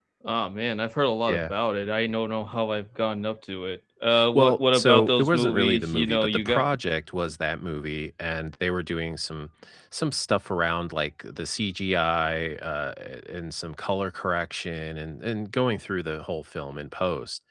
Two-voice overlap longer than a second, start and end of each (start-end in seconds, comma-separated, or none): 4.3-6.7